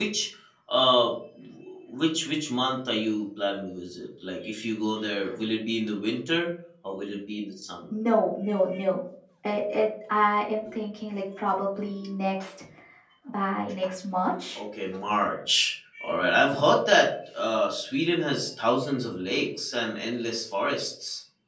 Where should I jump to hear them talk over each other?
none

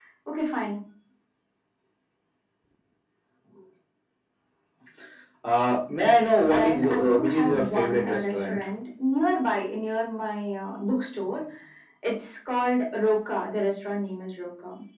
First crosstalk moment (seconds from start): 6 s

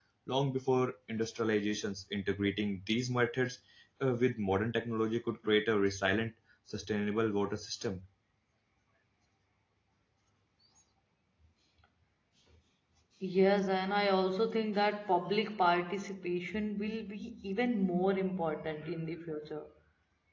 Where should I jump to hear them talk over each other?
none

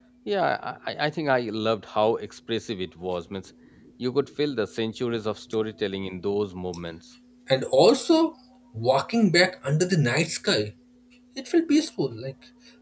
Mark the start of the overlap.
none

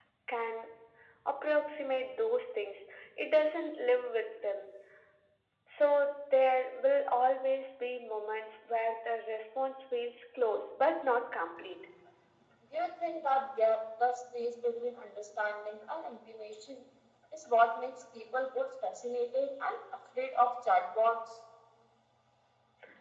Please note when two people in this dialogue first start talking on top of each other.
none

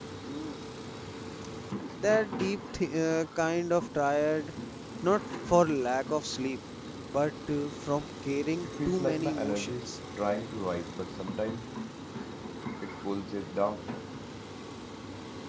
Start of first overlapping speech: 9 s

